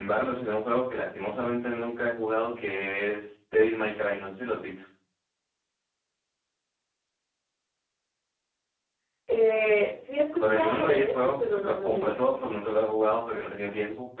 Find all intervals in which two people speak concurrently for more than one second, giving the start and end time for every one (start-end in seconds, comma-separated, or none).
10.4-12.2